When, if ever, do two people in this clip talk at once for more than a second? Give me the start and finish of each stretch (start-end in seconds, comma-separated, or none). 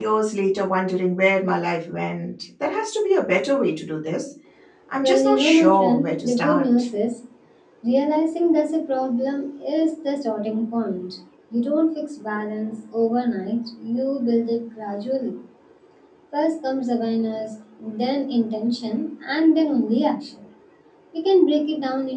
5.0-6.9